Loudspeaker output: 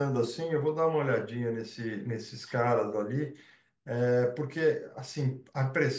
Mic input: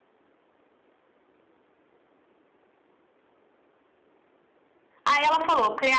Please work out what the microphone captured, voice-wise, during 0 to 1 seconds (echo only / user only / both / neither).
neither